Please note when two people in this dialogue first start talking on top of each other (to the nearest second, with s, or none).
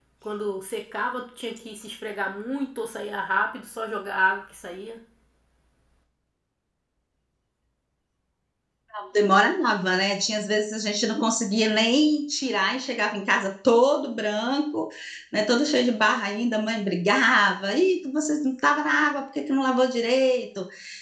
none